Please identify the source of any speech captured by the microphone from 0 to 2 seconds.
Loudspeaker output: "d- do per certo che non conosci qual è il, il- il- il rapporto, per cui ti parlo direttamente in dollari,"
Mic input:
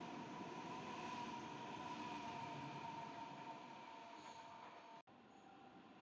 neither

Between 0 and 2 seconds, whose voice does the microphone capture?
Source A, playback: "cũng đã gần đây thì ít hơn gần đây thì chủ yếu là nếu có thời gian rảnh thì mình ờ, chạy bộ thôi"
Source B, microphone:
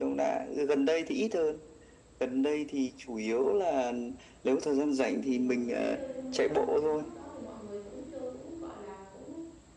echo only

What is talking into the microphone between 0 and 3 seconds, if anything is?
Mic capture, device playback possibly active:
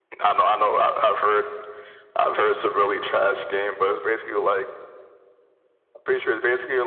echo only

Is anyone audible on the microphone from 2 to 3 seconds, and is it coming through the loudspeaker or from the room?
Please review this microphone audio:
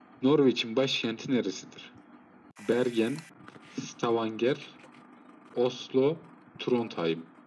echo only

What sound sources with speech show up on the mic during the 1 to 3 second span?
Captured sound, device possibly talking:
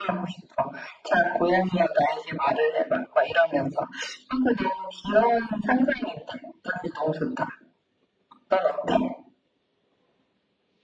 echo only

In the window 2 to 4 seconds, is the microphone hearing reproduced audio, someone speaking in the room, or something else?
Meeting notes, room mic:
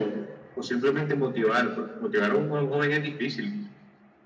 echo only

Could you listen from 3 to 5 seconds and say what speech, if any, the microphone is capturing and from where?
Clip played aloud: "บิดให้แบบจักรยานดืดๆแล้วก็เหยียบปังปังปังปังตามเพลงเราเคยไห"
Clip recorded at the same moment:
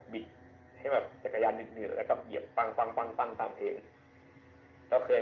echo only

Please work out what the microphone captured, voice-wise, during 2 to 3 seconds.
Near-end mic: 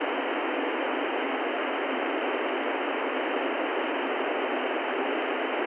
neither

